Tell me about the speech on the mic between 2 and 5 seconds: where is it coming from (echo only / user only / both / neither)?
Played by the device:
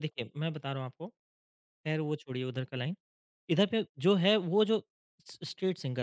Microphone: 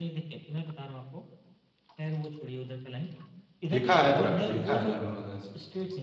both